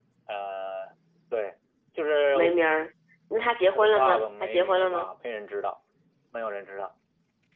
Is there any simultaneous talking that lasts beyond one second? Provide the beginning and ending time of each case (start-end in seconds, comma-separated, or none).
3.7-5.1